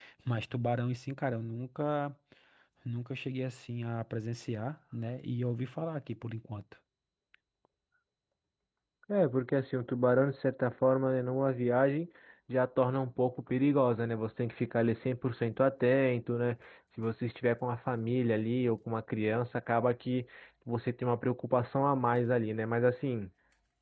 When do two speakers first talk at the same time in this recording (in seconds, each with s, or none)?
none